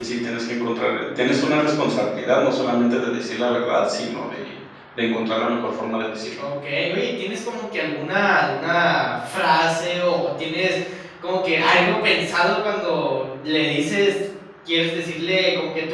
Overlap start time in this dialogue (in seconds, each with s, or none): none